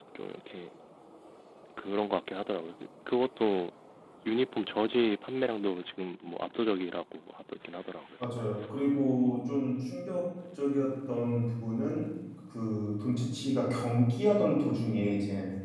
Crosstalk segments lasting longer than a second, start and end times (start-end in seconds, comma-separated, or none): none